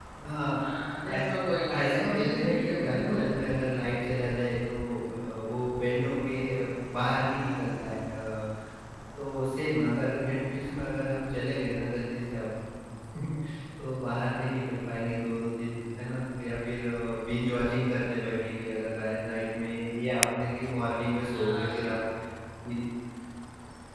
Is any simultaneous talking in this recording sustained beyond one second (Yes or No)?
Yes